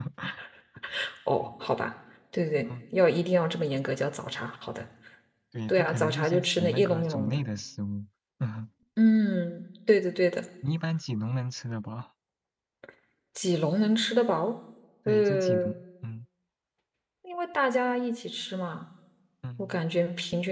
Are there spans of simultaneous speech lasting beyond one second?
Yes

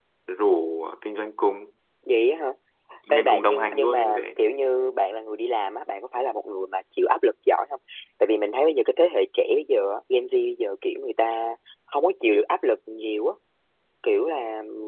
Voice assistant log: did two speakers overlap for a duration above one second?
Yes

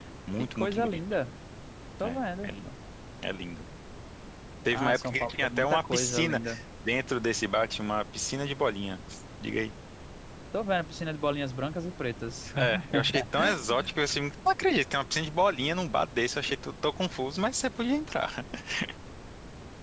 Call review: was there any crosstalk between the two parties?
Yes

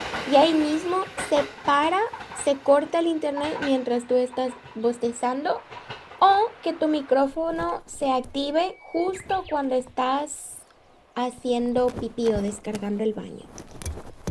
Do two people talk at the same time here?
No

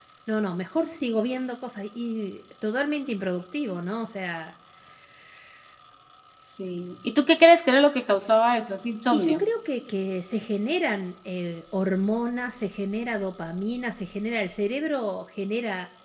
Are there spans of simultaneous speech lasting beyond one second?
No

